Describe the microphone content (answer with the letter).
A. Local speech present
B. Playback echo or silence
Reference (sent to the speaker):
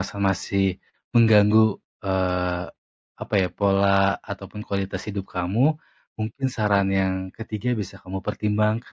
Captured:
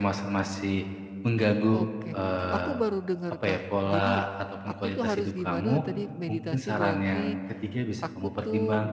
A